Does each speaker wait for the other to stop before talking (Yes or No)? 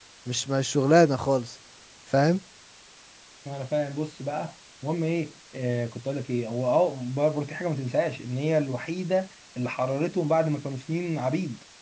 Yes